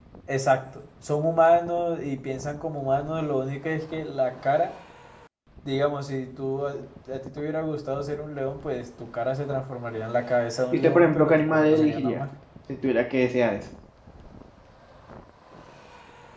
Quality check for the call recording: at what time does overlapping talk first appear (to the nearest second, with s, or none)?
11 s